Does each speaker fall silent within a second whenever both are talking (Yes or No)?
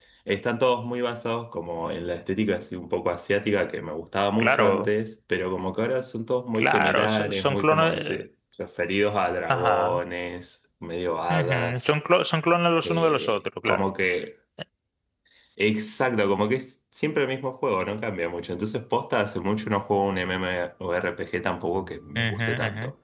No